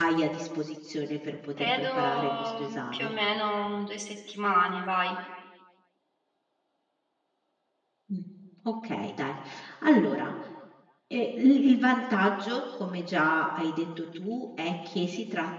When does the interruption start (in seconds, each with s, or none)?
1.6 s